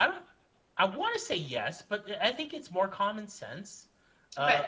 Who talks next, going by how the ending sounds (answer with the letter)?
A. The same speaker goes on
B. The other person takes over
A